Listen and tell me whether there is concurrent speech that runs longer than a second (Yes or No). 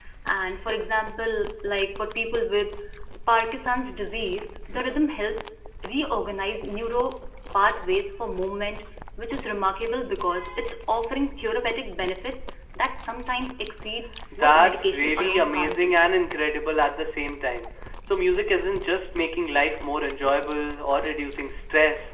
Yes